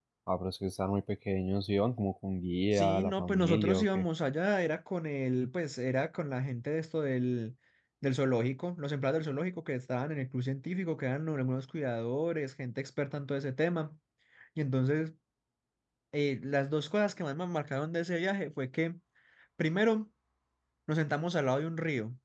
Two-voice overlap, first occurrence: 3 s

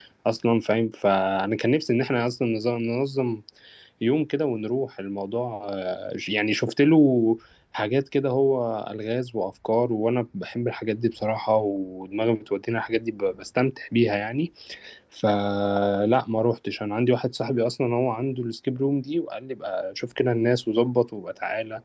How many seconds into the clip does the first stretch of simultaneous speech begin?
none

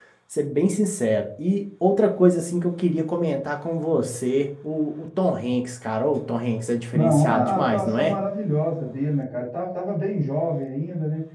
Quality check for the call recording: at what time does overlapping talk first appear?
7 s

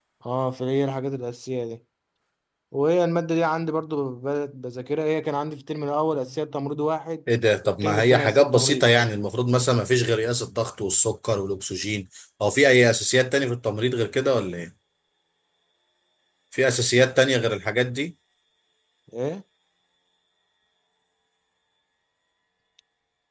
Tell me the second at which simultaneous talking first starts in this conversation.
8 s

